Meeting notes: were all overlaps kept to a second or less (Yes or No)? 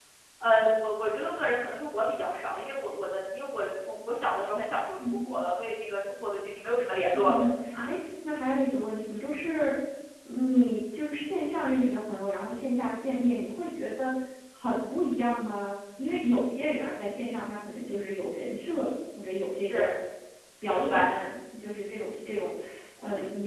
Yes